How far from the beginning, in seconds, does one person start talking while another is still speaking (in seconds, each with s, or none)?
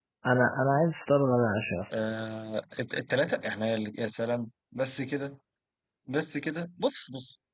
none